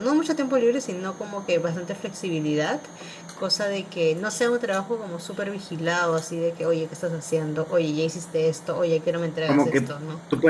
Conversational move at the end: taking over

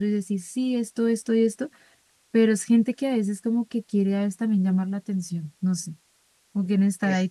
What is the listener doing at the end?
listening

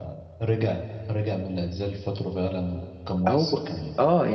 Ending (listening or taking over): taking over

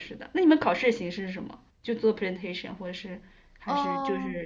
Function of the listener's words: taking over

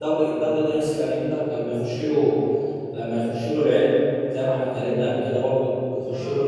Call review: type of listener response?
listening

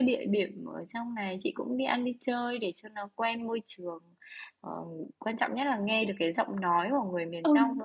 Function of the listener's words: listening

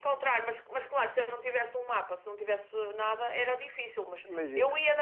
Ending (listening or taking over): listening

